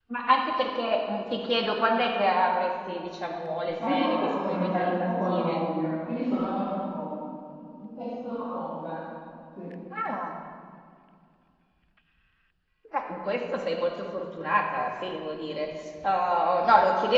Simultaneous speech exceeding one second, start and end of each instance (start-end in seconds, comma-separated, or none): 3.9-5.6